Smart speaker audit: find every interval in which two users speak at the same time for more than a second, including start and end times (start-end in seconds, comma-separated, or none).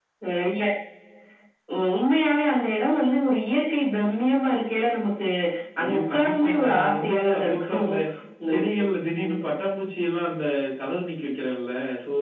5.8-7.9